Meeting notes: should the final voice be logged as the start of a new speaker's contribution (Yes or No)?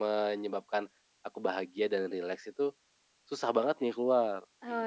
Yes